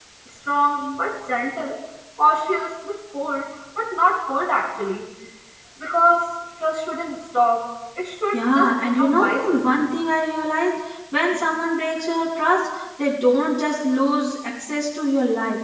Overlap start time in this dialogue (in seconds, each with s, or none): 8.3 s